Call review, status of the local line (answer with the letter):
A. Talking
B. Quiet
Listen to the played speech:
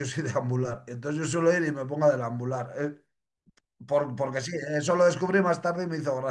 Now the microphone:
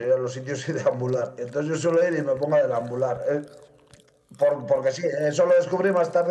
B